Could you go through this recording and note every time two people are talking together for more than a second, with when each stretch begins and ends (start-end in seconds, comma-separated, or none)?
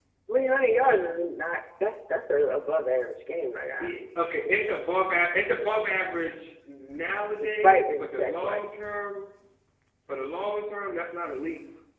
7.4-8.8